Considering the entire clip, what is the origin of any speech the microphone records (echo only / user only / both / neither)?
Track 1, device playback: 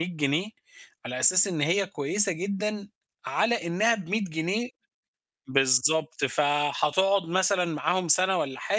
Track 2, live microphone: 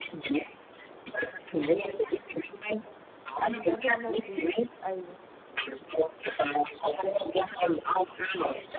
both